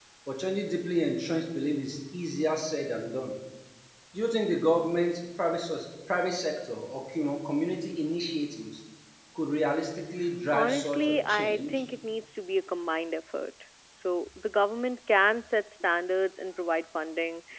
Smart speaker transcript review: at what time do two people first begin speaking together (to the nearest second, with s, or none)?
11 s